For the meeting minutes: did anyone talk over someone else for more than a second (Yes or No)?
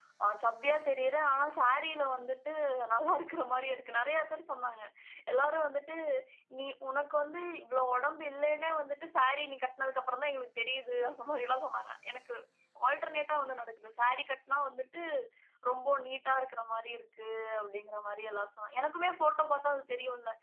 No